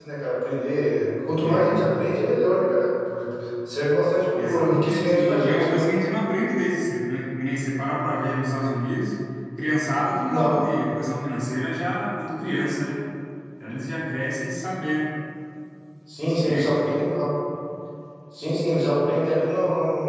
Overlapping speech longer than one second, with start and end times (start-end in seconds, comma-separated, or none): 4.4-5.8